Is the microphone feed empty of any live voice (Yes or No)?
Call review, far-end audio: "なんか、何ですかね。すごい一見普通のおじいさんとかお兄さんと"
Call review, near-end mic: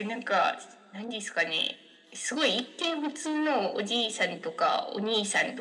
Yes